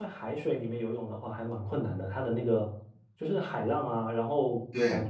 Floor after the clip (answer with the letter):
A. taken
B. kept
B